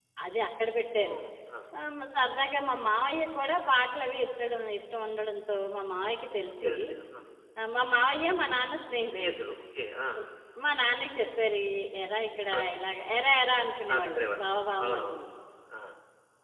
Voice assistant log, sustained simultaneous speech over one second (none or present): none